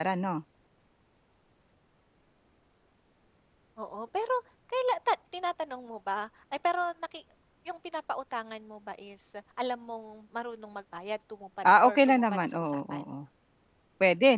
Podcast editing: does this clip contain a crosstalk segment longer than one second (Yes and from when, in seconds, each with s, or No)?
Yes, from 11.6 s